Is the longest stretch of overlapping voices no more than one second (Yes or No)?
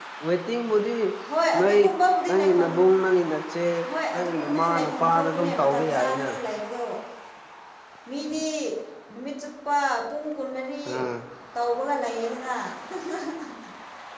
No